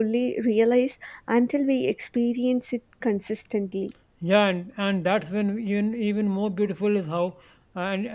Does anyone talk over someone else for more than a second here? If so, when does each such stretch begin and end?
none

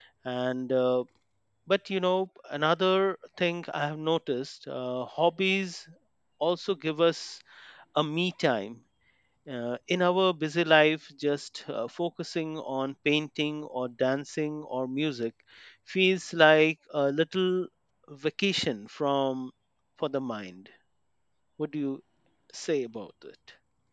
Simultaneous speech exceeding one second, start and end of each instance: none

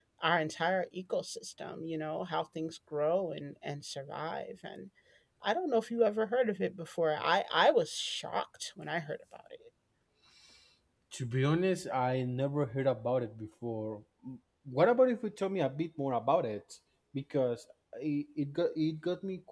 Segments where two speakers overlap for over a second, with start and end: none

